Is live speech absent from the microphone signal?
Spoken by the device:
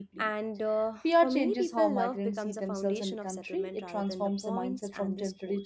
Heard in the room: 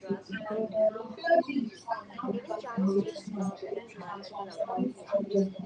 No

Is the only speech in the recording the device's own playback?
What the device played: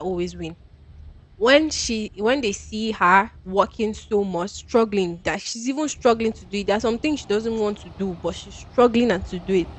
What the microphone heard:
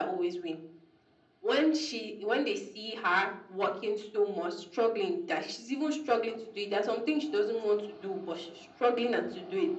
Yes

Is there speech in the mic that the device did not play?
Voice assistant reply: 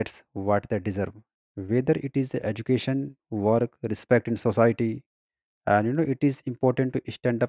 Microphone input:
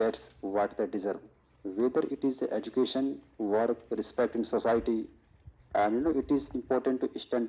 No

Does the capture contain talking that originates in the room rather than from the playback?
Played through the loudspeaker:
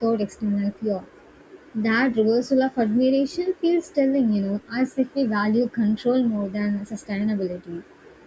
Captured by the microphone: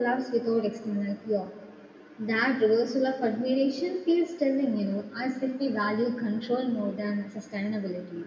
No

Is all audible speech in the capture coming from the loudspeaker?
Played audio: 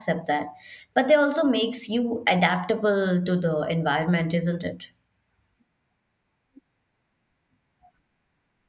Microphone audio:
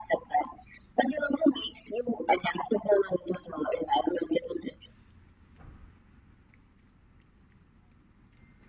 Yes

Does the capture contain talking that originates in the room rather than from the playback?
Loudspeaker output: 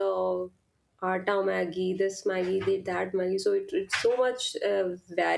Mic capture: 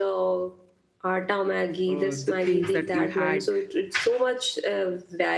Yes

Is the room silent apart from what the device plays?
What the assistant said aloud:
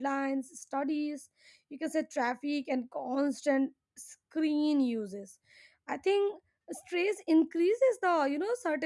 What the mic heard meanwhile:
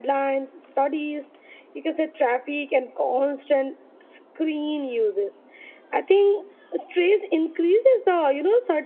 Yes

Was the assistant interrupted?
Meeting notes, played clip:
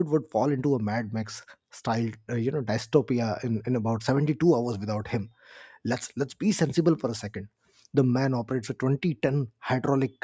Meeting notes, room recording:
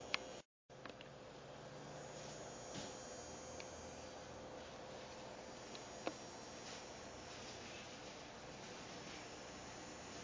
No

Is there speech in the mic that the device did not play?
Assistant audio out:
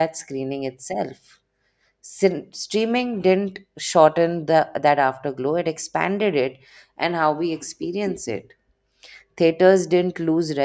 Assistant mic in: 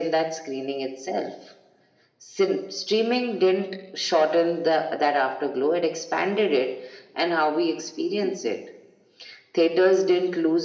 No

